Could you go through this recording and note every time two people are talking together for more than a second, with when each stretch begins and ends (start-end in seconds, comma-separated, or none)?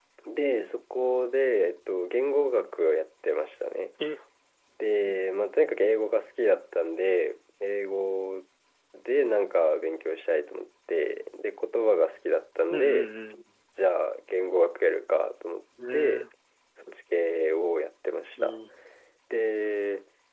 none